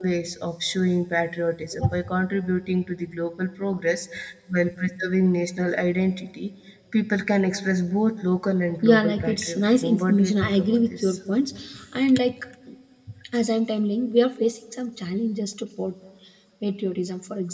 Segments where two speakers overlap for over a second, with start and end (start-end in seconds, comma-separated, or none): 8.8-11.2